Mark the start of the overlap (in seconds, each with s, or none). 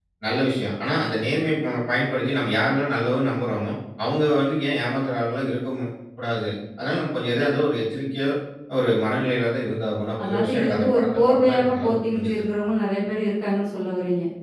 10.2 s